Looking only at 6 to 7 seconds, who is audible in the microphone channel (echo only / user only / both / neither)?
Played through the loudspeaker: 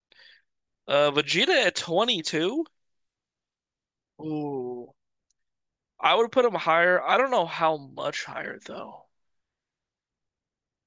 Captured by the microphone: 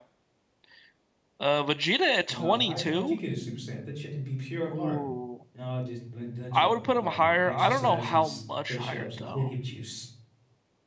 both